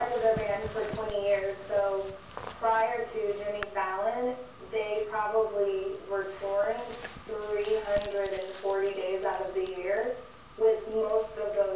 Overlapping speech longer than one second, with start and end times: none

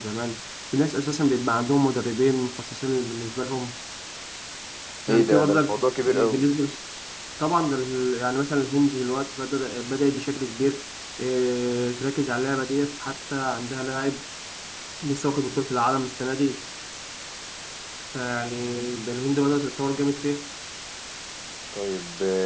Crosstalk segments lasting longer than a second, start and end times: 5.1-6.4

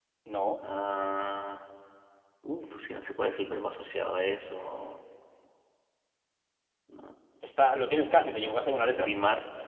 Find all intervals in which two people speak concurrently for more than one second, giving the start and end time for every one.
none

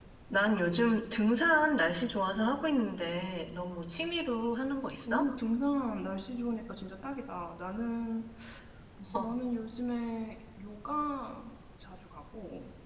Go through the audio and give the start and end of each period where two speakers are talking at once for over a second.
none

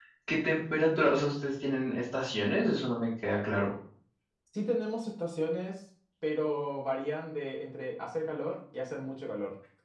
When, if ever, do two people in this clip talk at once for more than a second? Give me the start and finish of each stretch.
none

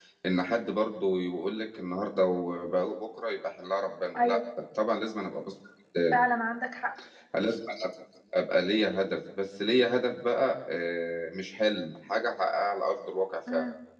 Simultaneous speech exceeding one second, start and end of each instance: none

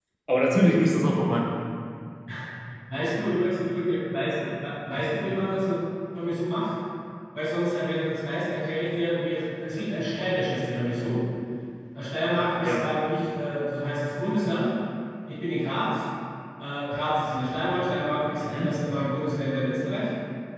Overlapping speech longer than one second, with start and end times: none

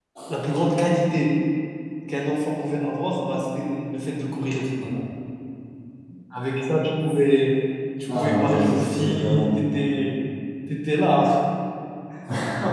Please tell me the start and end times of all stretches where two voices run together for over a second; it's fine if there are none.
8.1-9.5

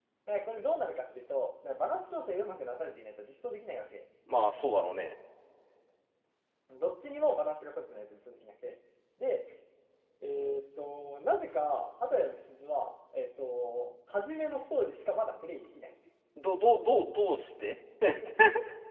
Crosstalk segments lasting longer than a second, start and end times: none

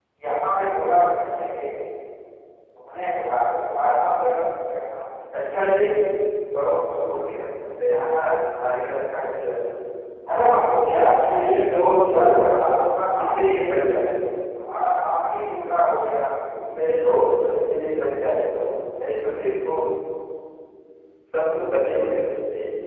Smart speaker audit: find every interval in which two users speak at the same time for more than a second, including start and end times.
10.9-12.2

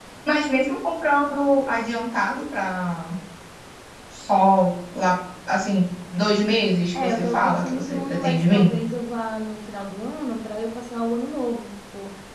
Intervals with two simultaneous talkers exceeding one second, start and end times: 7.0-8.7

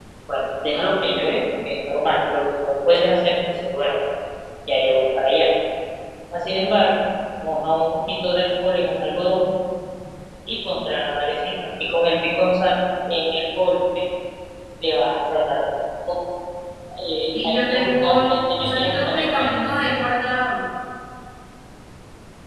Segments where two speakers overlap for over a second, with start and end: 17.3-19.5

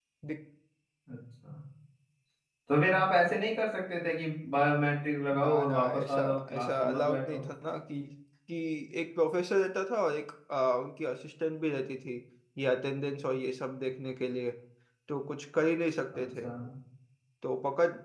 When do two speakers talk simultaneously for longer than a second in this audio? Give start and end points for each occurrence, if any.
5.3-7.4

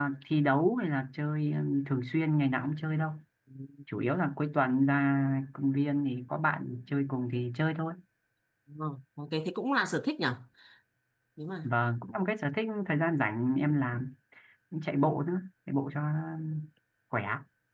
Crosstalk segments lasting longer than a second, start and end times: none

